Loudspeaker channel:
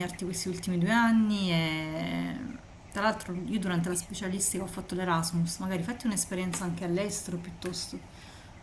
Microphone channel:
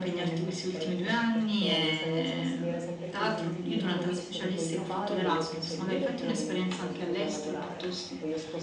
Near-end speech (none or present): present